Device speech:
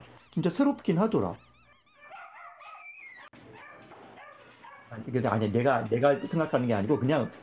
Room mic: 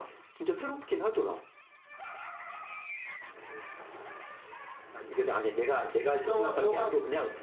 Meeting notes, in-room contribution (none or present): present